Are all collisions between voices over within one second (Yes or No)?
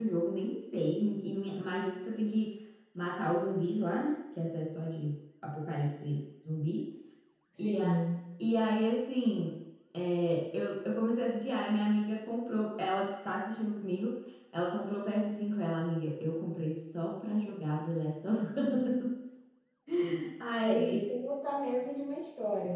Yes